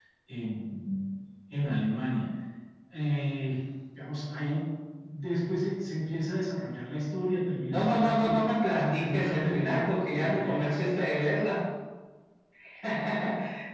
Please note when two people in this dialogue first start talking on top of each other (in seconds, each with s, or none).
7.7 s